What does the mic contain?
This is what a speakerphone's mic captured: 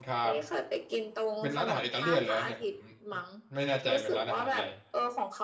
both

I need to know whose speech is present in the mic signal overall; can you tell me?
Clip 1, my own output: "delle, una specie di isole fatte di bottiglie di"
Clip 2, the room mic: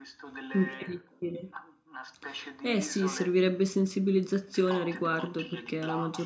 both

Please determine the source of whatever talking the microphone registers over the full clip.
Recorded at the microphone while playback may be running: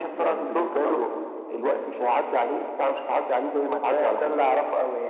echo only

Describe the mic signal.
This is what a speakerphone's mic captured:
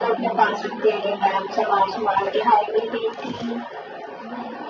both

